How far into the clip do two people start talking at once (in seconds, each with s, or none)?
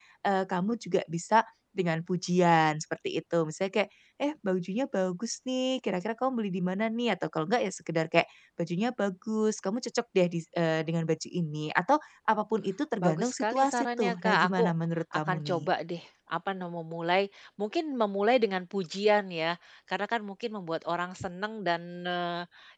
13.0 s